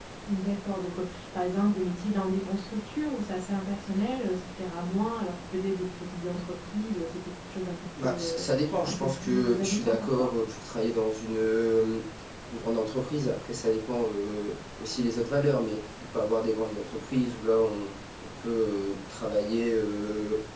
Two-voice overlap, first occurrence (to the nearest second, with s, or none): 8 s